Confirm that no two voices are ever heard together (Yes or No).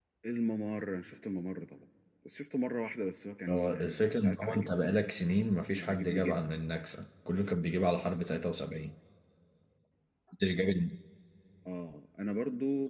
No